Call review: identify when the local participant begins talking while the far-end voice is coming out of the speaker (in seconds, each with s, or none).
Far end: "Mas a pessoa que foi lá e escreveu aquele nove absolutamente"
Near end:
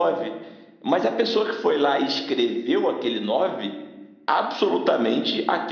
none